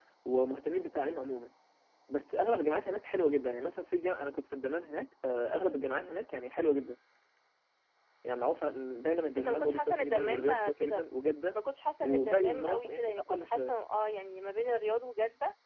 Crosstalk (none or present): present